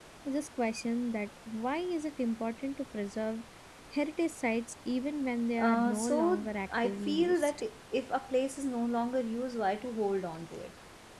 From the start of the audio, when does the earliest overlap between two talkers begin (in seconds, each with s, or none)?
5.6 s